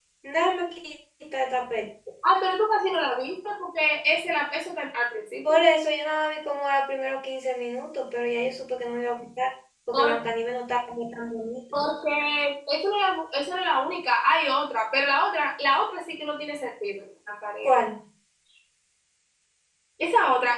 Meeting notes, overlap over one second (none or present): none